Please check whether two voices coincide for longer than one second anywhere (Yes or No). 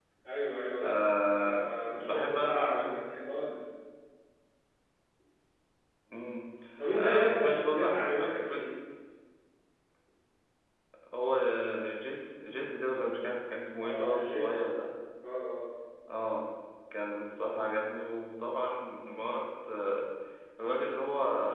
Yes